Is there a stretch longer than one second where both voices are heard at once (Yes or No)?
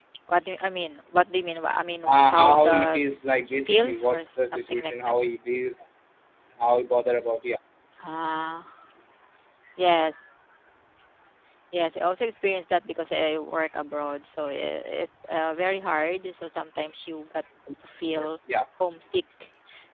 Yes